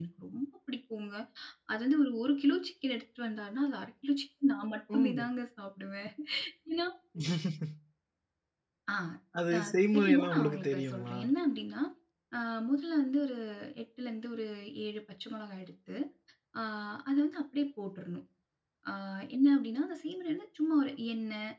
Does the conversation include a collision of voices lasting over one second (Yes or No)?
Yes